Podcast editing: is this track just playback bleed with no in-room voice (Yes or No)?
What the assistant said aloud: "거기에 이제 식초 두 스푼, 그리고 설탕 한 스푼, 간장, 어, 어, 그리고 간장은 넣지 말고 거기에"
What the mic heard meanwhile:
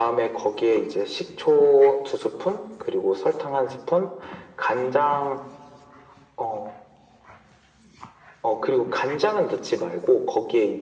Yes